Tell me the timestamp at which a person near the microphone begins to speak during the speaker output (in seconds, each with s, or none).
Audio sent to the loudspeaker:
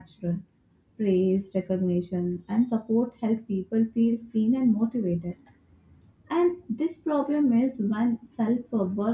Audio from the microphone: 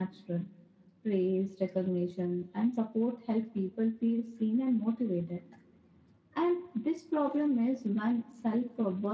none